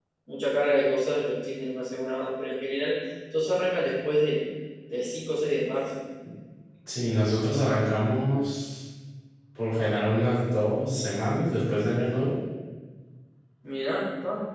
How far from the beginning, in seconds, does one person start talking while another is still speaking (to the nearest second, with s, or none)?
none